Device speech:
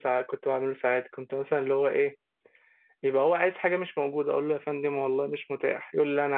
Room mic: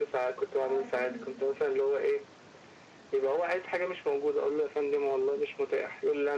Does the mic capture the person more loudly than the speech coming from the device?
No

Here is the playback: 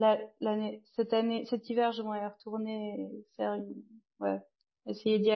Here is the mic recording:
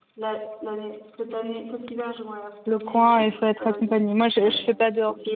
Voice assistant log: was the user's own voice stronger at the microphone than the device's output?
Yes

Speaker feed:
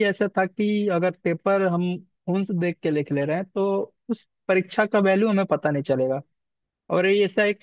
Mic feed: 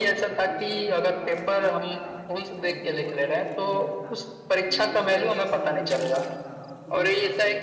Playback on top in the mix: Yes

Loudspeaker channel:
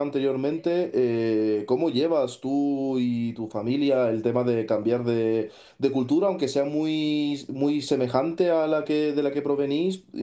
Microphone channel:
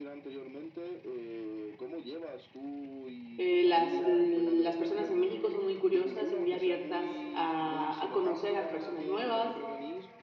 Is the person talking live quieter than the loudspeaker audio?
No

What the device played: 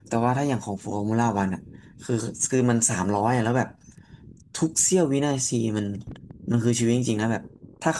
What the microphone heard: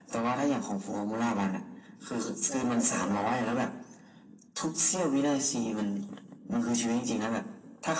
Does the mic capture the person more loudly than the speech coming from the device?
No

